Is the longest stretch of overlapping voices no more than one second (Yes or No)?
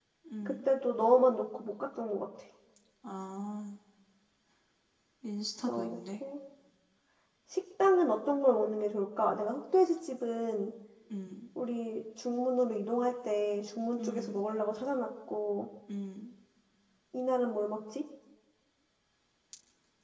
Yes